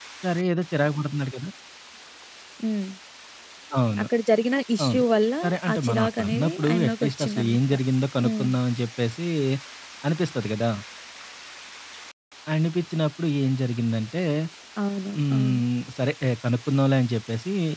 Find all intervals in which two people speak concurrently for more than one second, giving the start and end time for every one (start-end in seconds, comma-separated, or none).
5.7-7.6